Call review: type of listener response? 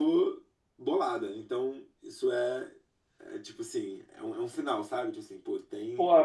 taking over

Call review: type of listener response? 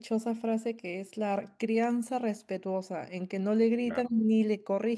listening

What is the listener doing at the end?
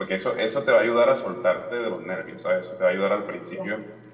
listening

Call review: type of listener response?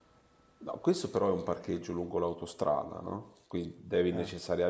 listening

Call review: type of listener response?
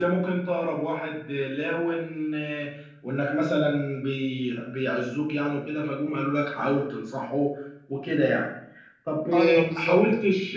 listening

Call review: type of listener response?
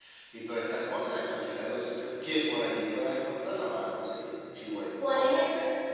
taking over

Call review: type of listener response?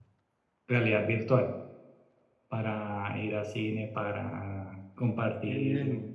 listening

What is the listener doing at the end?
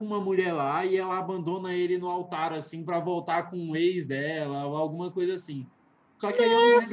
listening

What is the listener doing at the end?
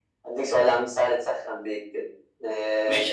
taking over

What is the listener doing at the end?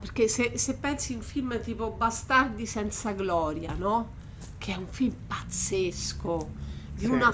listening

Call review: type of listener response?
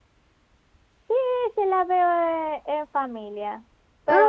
listening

